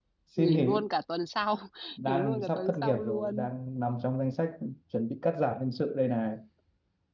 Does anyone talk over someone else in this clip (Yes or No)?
Yes